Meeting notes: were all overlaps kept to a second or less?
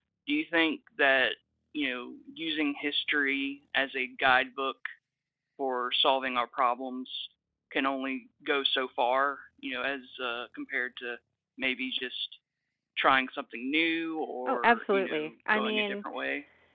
No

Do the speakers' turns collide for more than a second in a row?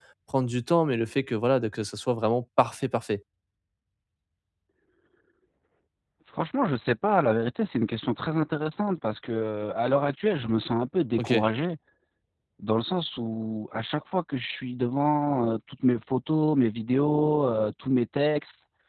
No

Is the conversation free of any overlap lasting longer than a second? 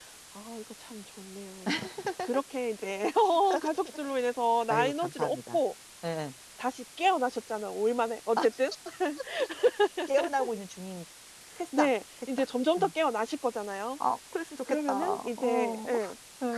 No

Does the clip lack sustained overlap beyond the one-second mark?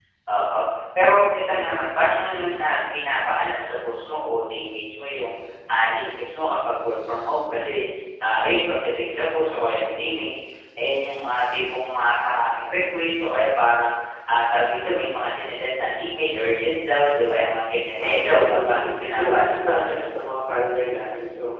No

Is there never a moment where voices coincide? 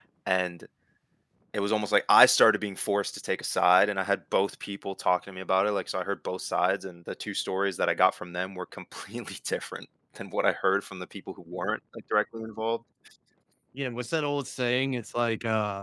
Yes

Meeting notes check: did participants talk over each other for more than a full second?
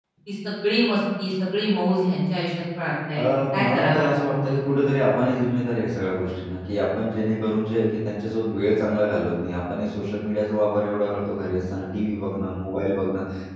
Yes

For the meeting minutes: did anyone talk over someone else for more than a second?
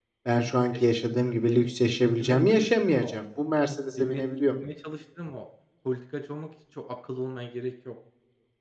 Yes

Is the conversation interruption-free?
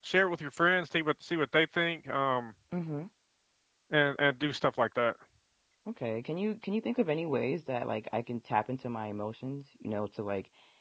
Yes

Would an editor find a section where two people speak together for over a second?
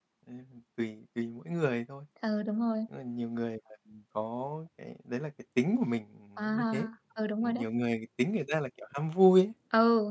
No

